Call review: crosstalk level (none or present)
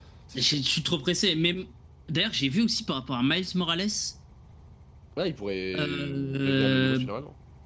present